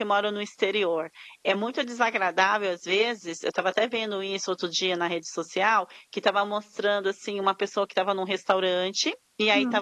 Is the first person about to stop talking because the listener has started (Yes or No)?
No